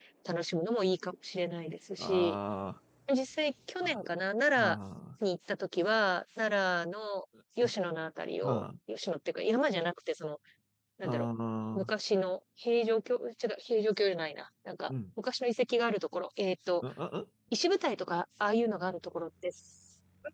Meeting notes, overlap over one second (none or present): none